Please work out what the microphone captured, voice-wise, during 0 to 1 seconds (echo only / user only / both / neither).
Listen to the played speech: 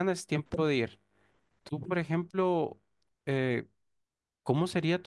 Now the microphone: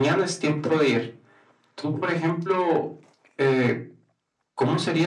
echo only